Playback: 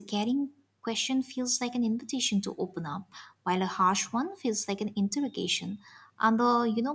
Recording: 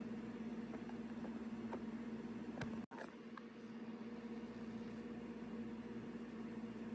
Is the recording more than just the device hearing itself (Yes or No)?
No